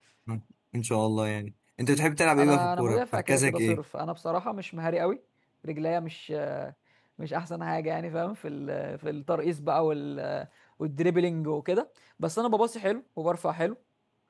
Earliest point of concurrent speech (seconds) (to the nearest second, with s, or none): 2 s